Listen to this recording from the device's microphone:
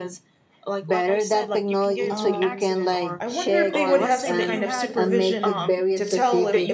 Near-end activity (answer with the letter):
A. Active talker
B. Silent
A